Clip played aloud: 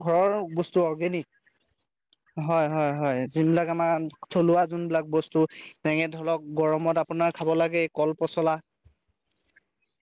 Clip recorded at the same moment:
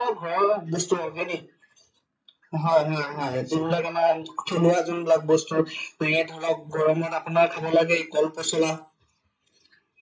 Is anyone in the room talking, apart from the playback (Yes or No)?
No